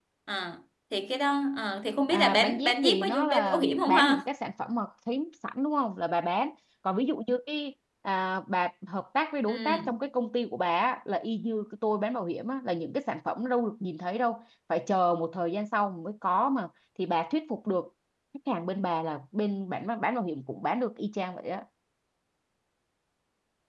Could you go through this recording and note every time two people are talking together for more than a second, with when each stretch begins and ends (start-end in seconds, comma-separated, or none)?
2.1-4.2